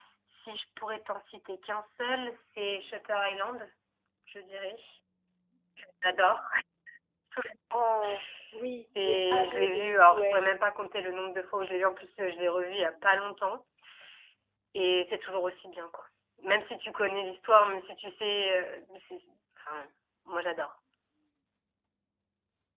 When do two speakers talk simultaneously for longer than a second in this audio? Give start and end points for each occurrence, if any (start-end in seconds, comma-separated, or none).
9.0-10.4